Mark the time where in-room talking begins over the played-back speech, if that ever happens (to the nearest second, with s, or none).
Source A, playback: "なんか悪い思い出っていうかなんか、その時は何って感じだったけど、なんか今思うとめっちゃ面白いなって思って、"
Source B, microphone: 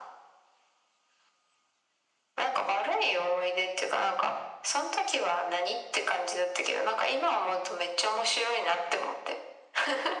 none